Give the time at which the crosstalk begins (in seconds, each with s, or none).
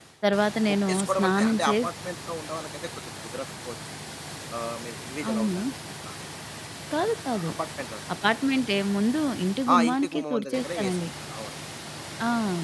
0.7 s